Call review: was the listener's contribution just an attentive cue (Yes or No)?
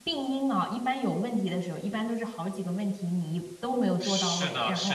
No